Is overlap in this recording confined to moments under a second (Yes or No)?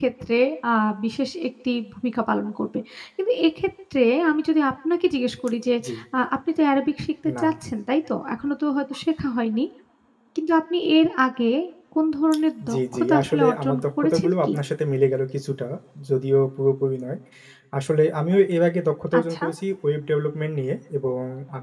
No